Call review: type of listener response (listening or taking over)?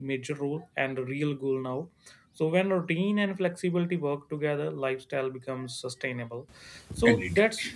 listening